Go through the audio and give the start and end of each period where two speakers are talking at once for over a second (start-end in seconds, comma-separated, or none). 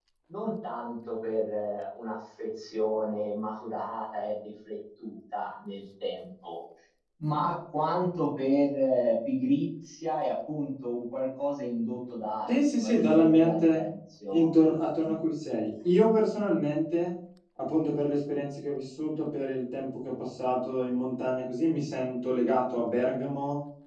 12.5-13.8